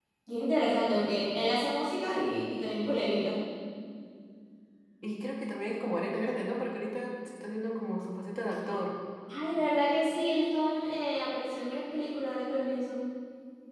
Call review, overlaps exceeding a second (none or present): none